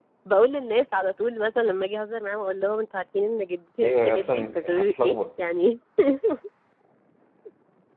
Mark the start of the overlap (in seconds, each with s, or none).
3.8 s